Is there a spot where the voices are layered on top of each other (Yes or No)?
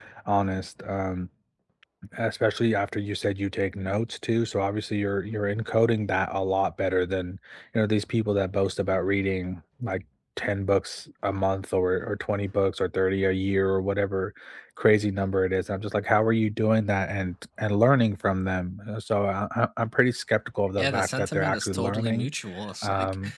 Yes